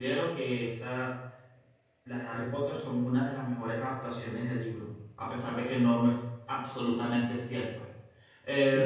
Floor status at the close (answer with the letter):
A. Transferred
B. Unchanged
A